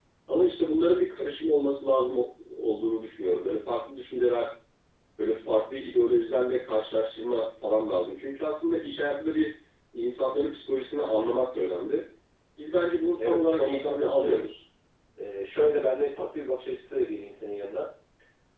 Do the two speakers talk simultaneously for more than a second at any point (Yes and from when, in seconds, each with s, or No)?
Yes, from 13.2 s